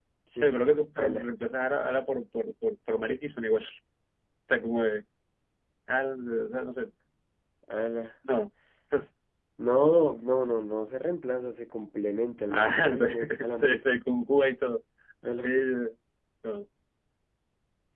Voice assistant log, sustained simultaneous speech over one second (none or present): present